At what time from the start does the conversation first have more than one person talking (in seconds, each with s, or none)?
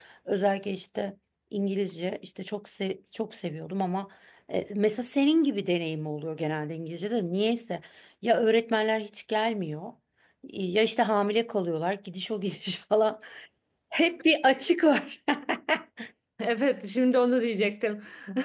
none